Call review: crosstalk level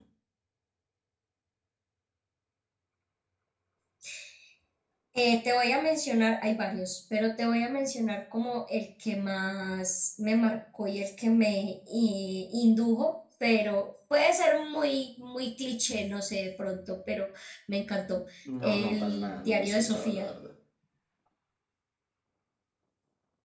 present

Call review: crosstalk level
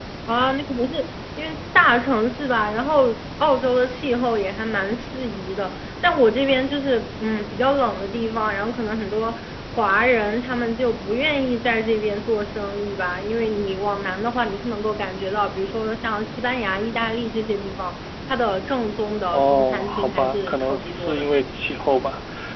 present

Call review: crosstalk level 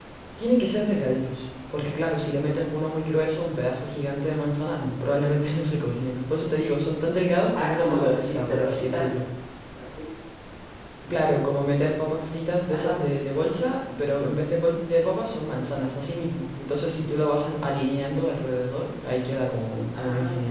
present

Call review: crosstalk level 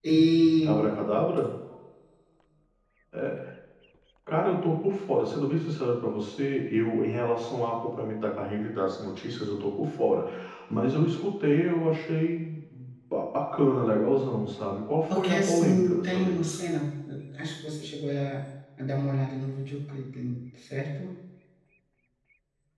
present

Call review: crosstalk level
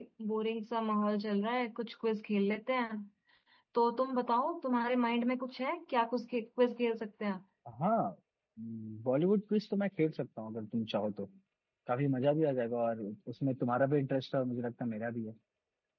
none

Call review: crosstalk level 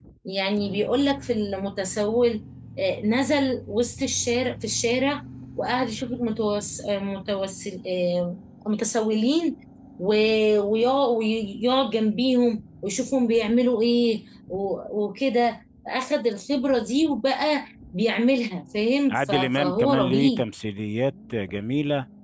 present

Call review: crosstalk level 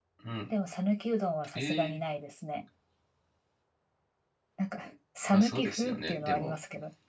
present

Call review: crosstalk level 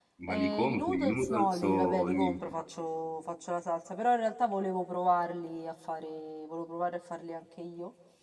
present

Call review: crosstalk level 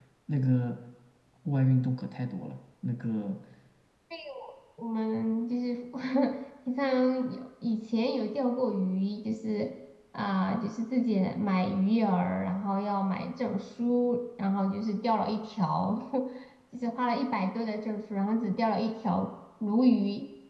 none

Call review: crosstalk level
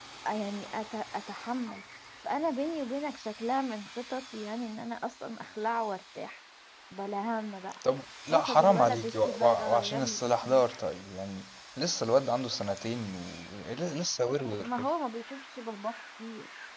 present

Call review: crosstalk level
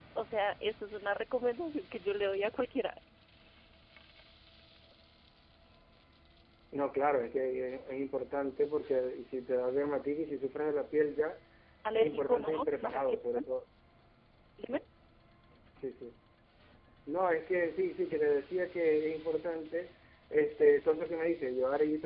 present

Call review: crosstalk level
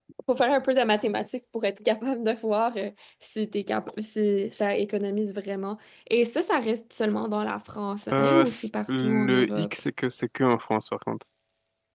present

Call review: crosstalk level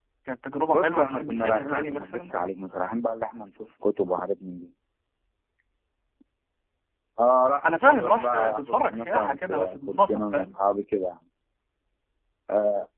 present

